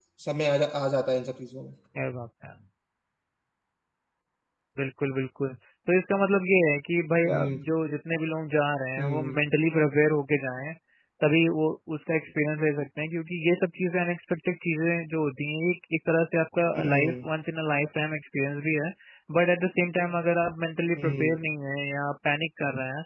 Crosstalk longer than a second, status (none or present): none